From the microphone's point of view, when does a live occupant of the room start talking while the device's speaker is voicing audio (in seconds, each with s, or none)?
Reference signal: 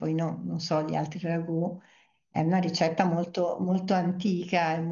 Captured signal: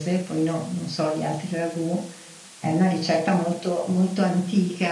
none